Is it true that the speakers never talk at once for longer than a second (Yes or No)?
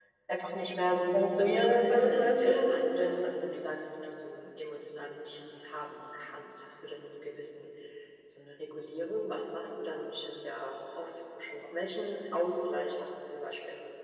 No